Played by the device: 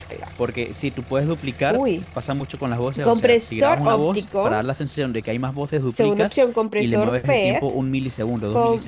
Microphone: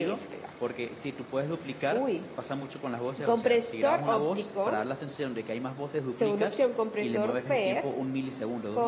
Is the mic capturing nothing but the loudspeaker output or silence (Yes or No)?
Yes